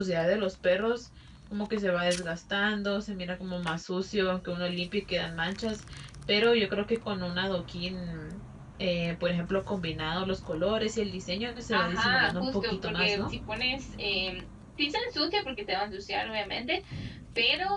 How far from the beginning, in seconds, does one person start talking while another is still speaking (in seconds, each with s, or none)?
11.7 s